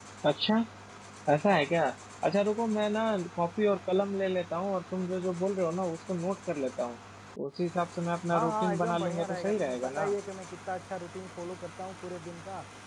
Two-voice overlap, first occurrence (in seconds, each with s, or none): 8.3 s